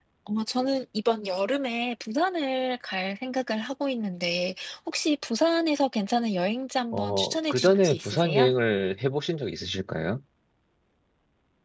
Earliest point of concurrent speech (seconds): 6.9 s

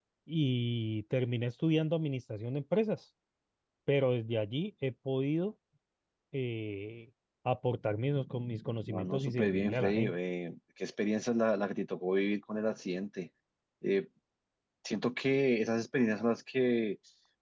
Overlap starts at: 8.9 s

